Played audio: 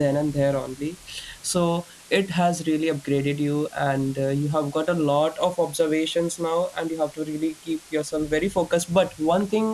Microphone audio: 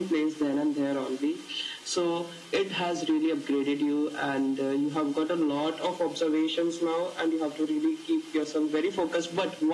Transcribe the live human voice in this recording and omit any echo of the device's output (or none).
none